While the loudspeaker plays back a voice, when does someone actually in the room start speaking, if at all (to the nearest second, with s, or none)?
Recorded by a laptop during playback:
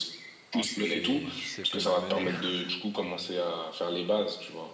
1 s